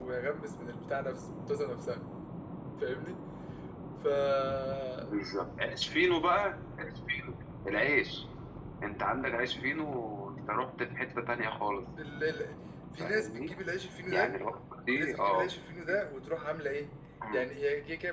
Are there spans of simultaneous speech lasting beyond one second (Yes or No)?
No